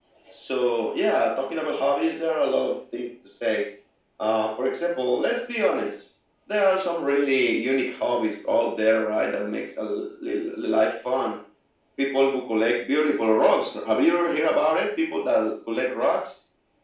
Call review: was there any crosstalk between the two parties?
No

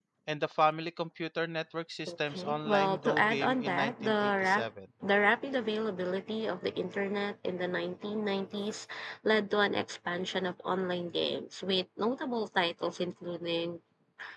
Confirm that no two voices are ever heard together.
No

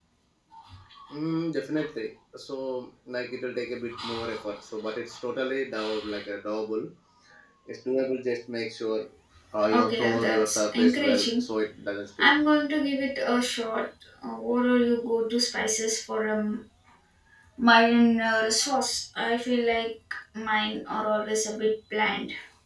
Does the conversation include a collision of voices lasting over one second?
Yes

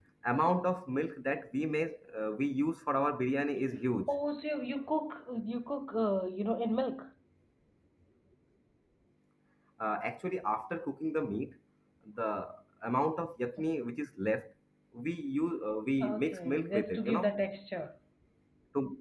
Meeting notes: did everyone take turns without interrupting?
No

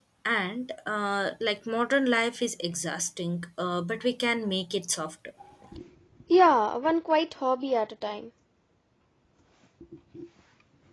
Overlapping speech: No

